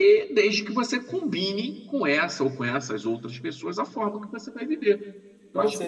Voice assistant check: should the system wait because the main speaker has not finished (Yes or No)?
No